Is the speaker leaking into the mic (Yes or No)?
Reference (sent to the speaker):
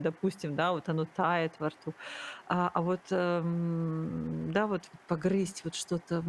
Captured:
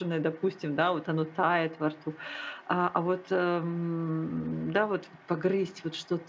Yes